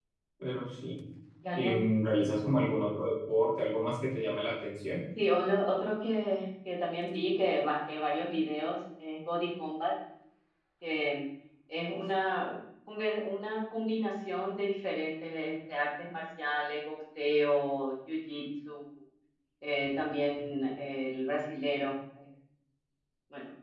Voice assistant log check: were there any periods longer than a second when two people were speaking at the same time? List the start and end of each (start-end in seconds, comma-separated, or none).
none